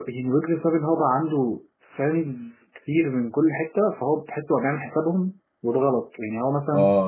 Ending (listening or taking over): listening